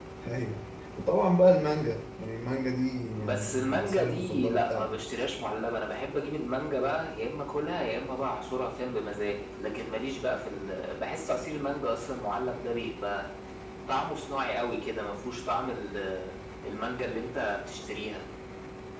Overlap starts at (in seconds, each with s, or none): 3.2 s